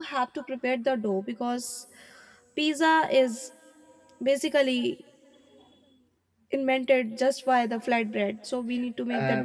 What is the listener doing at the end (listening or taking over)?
taking over